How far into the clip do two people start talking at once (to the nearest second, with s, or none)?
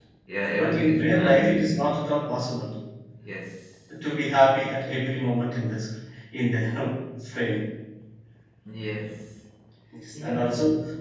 1 s